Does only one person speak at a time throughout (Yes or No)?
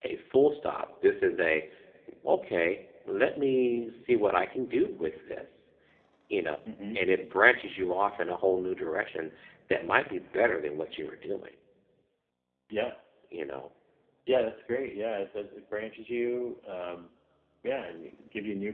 Yes